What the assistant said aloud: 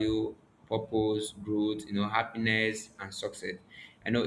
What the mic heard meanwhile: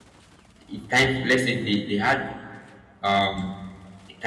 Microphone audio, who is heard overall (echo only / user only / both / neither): user only